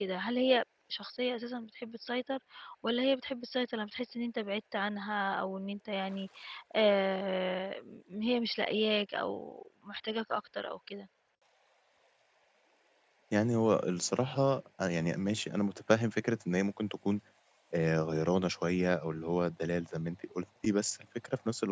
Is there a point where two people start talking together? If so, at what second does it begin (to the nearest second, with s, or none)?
none